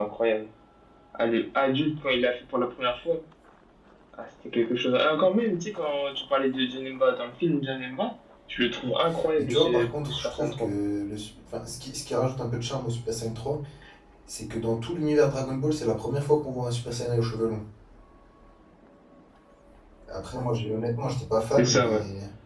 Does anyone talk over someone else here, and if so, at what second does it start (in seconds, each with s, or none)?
9.4 s